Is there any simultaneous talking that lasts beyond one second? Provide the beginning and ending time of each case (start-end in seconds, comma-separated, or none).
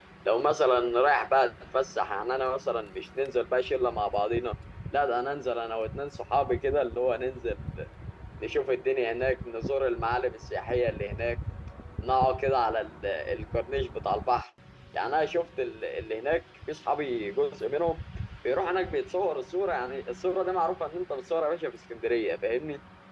none